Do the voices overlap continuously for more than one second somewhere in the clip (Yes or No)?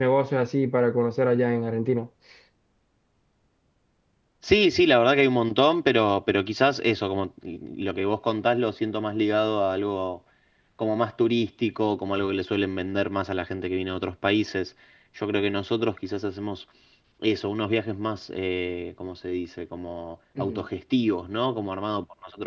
No